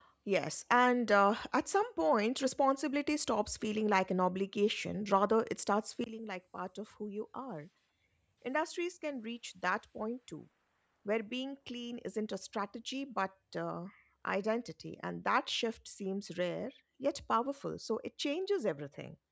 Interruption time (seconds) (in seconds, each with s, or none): none